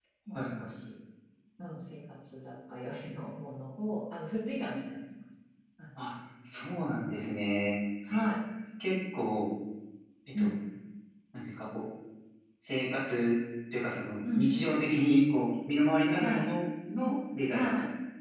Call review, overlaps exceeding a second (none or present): none